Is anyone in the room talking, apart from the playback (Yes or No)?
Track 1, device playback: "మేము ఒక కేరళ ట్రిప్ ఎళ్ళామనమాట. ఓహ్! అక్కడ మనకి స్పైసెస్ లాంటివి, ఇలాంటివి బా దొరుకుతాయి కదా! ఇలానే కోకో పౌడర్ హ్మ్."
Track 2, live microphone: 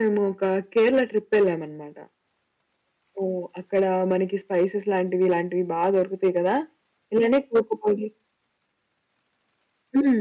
No